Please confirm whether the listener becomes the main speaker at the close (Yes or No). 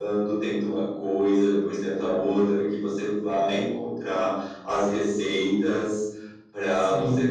No